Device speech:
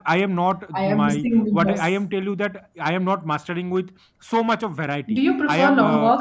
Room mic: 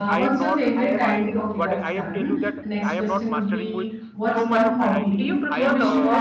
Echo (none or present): present